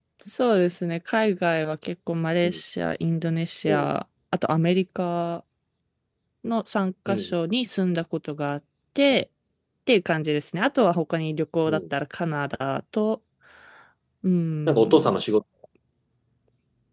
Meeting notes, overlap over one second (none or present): none